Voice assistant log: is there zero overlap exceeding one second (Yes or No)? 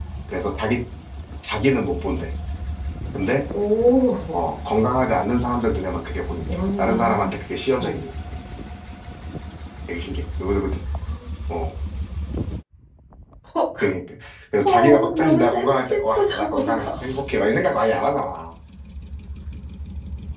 No